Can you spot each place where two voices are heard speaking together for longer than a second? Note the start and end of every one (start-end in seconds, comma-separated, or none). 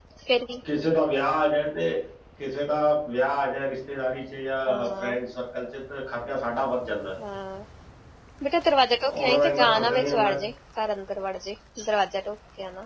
9.0-10.3